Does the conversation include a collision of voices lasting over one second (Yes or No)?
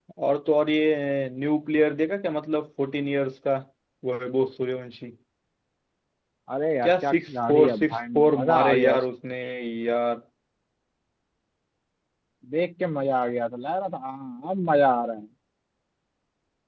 Yes